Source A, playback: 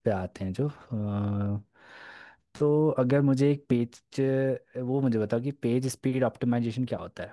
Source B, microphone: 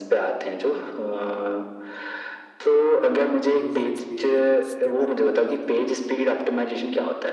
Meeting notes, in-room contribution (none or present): present